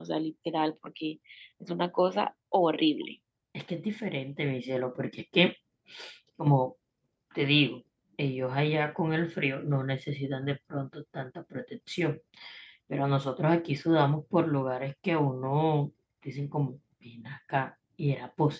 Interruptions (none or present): none